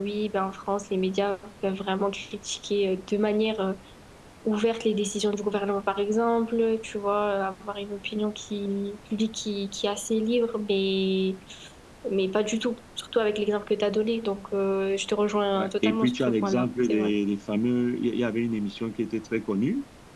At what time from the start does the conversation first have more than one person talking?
16 s

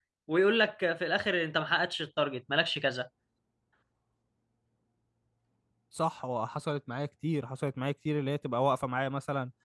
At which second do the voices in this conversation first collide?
none

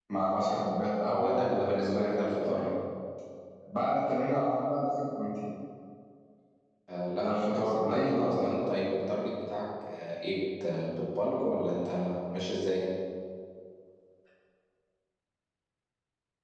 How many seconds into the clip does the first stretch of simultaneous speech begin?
1 s

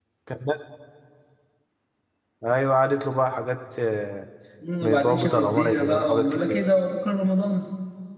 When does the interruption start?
5 s

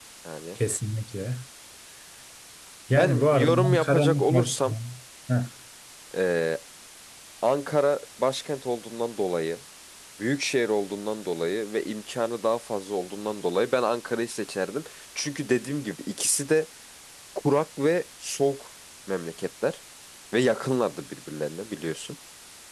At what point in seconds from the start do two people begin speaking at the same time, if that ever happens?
3 s

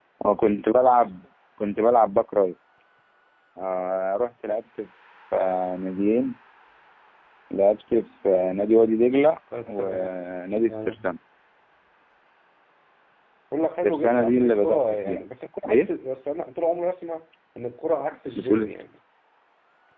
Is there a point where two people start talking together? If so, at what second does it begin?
10 s

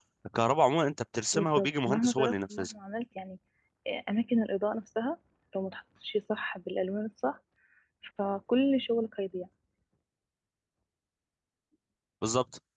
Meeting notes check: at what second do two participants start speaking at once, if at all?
1 s

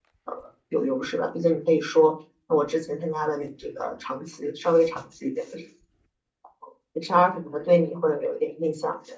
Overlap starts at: none

